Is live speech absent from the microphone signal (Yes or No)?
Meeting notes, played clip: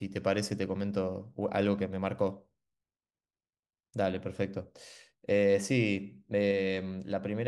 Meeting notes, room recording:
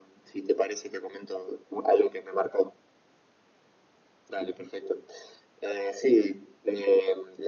Yes